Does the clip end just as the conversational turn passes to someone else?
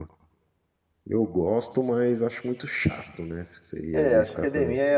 Yes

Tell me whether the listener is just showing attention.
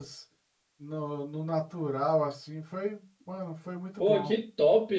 No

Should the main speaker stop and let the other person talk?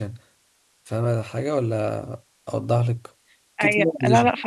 Yes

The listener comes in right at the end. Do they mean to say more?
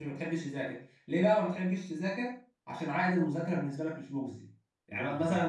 No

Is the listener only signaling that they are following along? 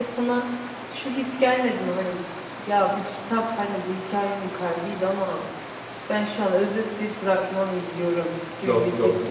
No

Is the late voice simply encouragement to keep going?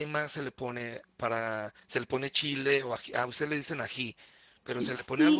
No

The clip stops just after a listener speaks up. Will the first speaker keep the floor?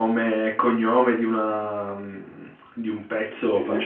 Yes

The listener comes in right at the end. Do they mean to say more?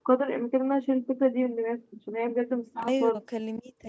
Yes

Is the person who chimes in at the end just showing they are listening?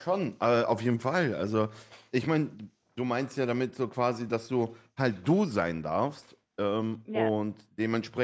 Yes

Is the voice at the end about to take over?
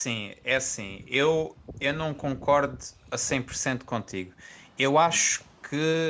No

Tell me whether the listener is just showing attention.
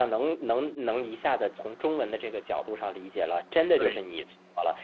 Yes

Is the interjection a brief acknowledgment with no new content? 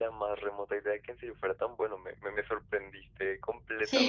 No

